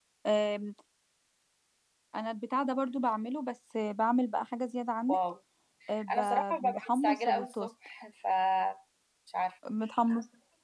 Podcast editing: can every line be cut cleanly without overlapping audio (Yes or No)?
No